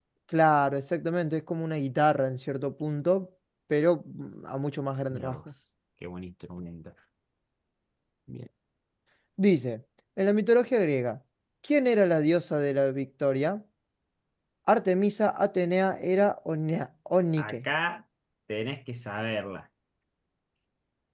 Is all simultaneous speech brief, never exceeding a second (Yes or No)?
Yes